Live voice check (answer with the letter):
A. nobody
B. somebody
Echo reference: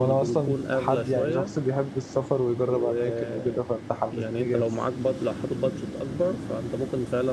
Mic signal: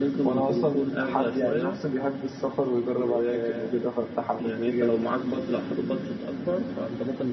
A